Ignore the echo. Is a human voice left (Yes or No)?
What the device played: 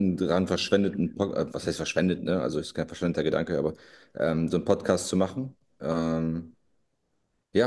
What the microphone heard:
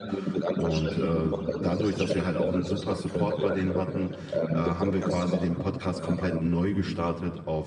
Yes